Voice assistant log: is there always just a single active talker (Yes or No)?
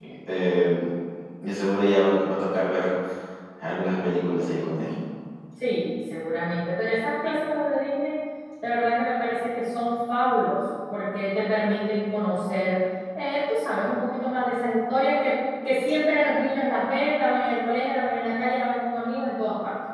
Yes